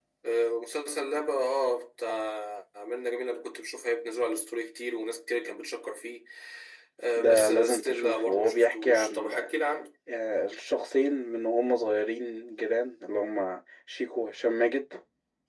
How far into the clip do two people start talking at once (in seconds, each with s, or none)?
7.2 s